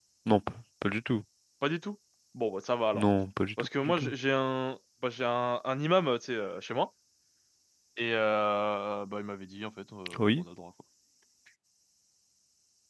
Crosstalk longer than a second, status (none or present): none